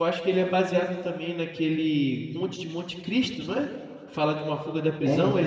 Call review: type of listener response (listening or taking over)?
listening